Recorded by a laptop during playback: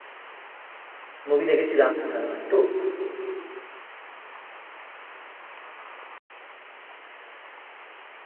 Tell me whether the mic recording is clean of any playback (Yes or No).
Yes